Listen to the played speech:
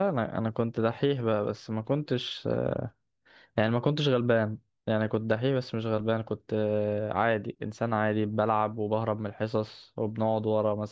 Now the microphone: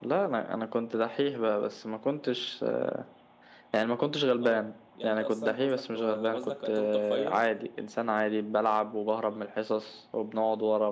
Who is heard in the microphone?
both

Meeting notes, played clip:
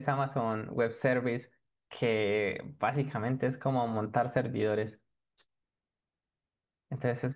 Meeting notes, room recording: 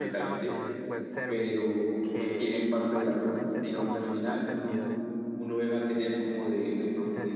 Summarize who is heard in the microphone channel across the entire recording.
both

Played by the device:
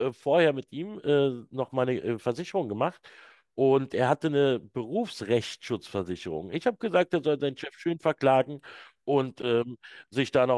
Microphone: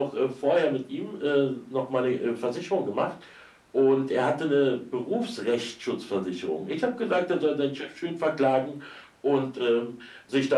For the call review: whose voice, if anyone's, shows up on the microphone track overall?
echo only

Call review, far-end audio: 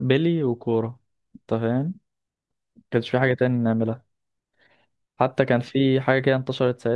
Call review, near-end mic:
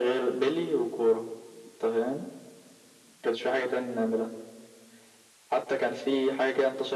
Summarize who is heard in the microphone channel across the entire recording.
echo only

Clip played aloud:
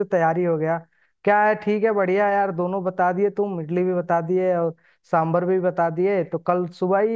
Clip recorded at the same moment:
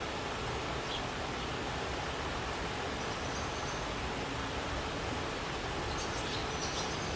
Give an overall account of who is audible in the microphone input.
neither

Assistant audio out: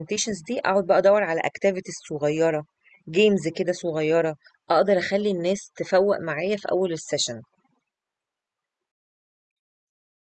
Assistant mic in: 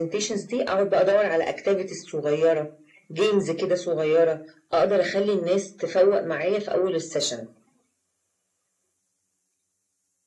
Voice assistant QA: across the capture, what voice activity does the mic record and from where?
echo only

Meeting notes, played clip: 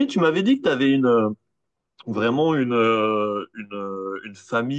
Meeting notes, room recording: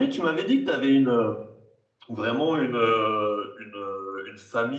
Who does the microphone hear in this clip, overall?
echo only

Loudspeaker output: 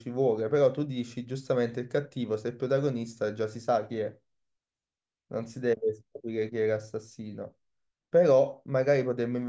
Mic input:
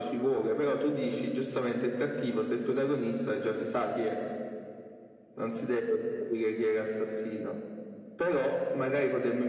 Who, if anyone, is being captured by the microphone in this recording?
echo only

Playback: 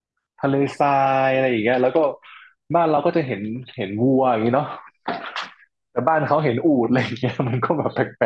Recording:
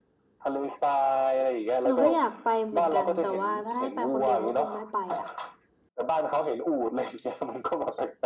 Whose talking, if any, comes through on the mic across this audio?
both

